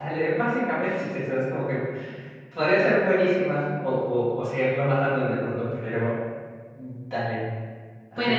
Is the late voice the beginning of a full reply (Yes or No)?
Yes